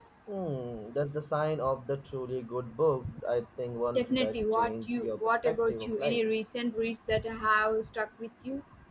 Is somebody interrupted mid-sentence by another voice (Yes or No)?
Yes